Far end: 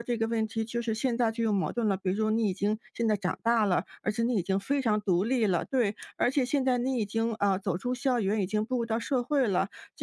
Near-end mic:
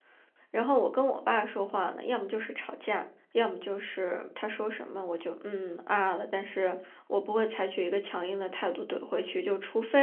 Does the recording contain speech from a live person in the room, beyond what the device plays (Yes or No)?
Yes